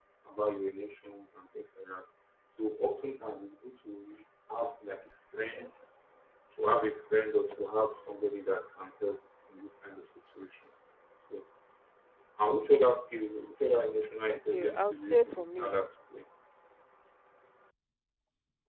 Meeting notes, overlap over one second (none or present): present